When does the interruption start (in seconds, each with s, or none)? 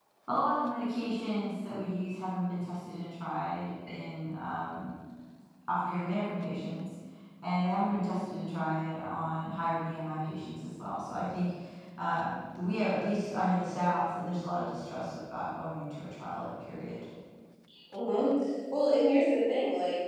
none